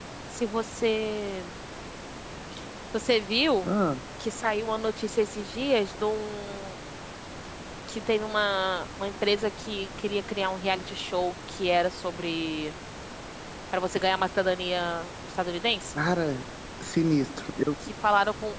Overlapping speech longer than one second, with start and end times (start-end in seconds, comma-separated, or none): none